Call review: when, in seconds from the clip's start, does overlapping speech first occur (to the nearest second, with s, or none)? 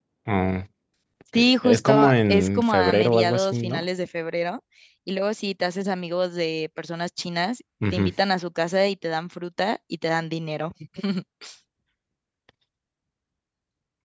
1 s